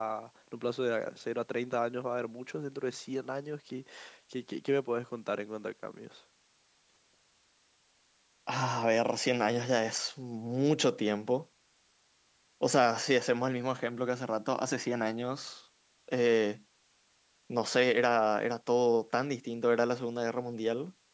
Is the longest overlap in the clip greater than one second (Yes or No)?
No